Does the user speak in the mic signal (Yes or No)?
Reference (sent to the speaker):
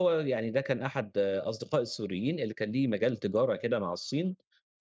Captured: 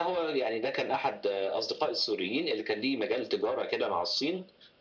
No